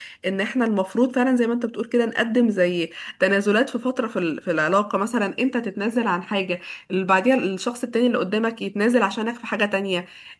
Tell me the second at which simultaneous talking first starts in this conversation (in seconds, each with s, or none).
none